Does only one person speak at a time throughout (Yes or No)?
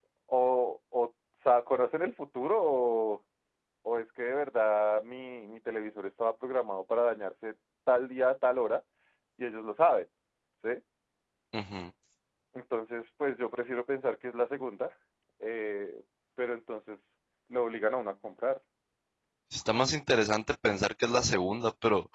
Yes